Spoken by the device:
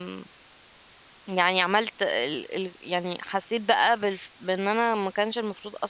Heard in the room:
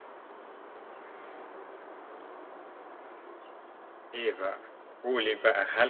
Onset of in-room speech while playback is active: 4.1 s

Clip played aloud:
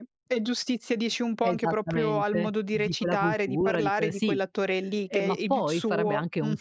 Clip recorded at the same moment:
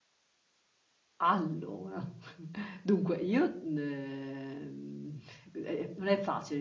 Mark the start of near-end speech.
1.2 s

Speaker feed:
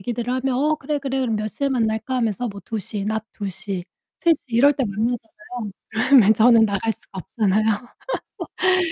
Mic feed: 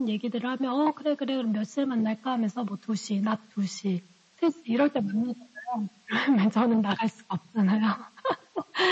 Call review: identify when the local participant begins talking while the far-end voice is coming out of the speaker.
none

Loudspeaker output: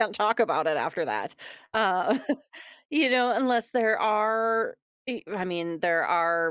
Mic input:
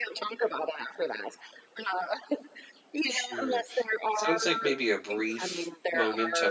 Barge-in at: 3.1 s

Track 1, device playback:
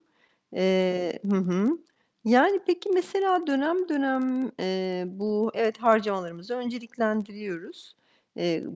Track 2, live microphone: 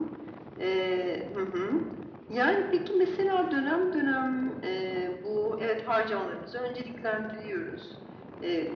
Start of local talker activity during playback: none

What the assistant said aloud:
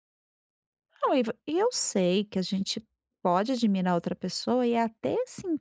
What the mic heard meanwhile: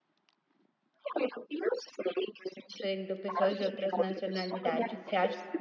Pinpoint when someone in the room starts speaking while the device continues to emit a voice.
2.7 s

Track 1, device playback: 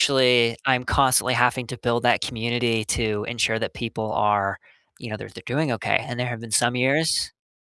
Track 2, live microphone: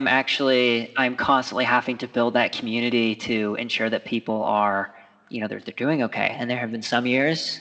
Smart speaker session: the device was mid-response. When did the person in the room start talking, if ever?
none

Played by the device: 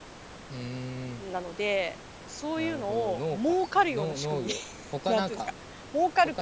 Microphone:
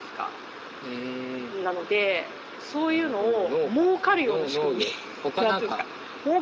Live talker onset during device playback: none

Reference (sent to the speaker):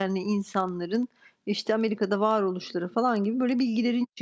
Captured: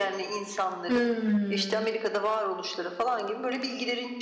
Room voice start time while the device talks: 0.9 s

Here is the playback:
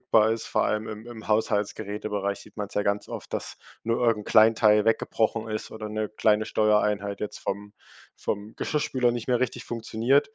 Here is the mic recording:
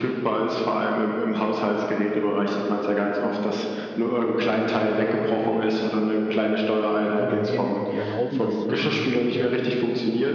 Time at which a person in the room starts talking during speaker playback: 7.0 s

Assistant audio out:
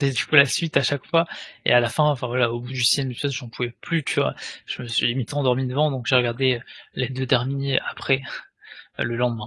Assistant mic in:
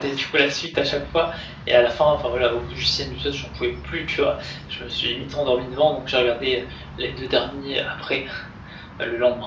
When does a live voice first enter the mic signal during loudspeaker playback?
none

